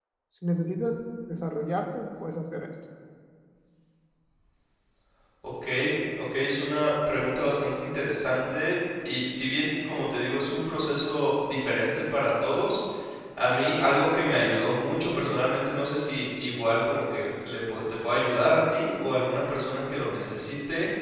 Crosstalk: none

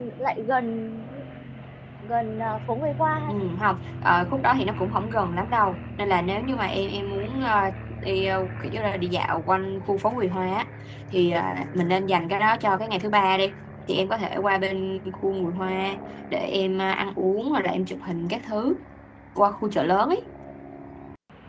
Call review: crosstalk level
none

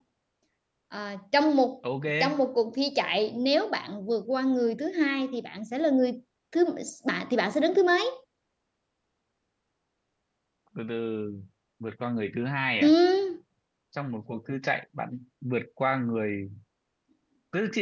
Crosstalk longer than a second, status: none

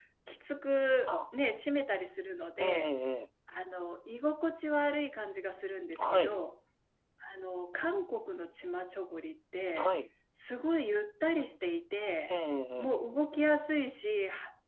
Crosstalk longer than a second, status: none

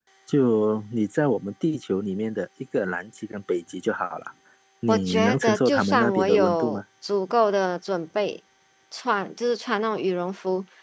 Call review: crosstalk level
present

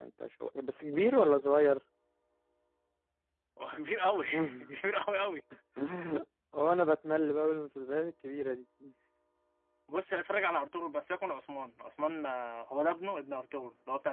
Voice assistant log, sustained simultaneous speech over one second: none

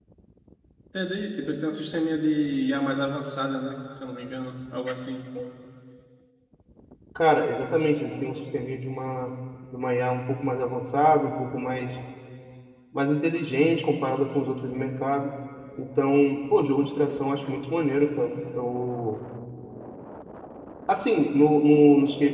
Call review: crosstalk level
none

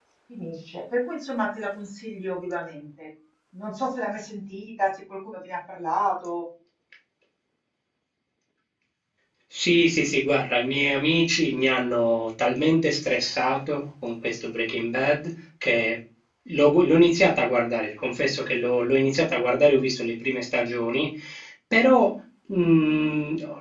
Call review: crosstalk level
none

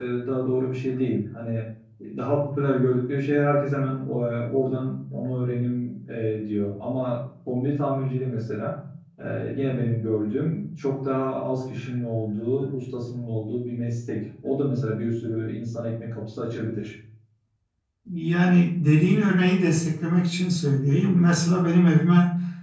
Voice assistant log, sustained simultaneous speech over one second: none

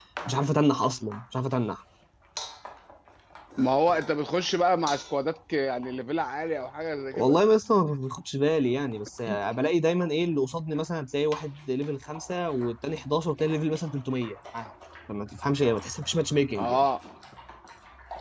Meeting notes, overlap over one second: none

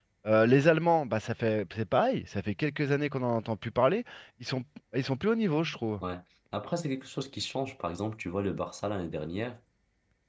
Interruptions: none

